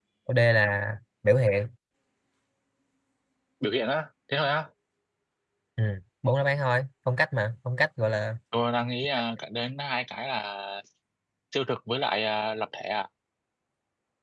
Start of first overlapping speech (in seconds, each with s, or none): none